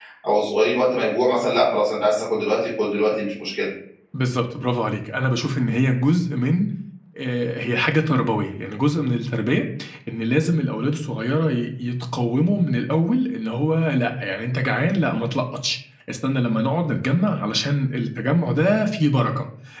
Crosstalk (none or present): none